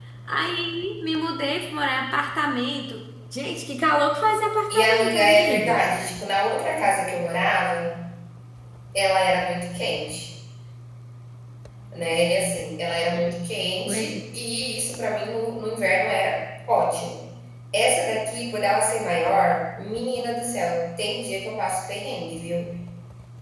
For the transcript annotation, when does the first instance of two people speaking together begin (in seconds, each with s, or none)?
4.7 s